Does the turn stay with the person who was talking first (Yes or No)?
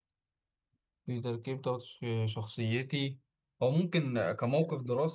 Yes